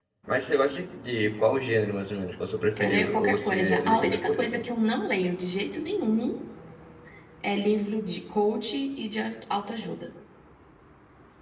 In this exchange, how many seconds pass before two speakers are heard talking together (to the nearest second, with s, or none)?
3 s